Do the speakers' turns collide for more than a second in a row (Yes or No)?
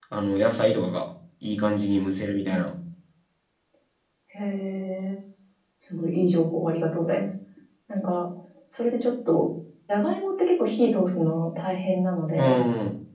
No